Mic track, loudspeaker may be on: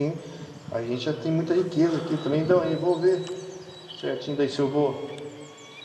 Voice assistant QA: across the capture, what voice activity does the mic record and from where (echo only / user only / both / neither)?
user only